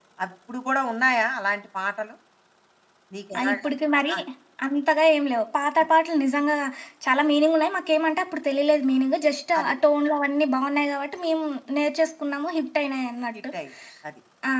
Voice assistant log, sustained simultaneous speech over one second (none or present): none